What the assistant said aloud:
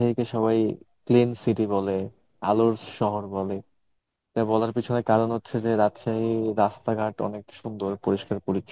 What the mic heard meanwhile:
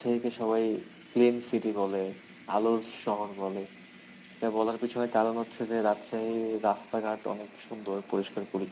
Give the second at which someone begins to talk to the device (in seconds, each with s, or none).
none